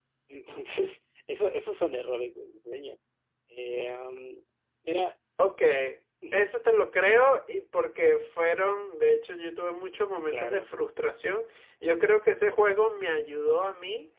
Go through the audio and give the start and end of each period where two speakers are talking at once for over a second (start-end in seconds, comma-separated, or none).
none